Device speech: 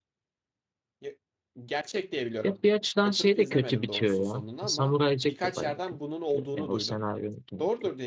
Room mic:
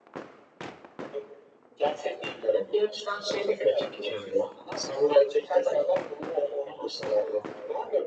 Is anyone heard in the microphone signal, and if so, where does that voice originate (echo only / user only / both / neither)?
echo only